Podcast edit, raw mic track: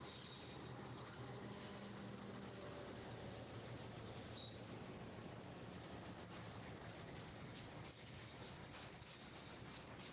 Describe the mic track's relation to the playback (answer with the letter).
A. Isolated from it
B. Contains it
A